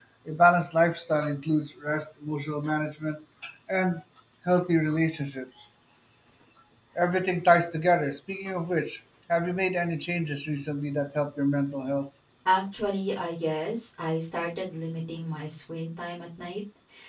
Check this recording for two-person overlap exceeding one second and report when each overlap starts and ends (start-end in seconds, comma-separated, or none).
none